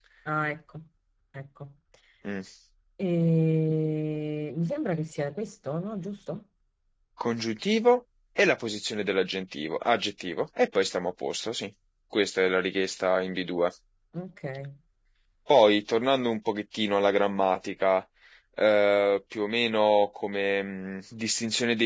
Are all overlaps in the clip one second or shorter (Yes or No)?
Yes